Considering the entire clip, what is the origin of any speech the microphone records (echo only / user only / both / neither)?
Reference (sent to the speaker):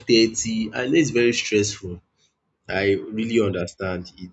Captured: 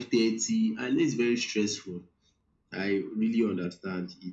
echo only